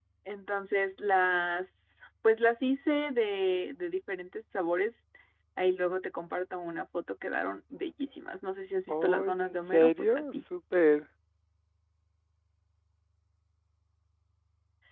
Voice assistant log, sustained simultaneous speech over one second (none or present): present